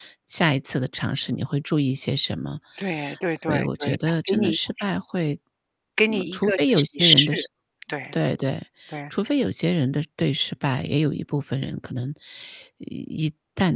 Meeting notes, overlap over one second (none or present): present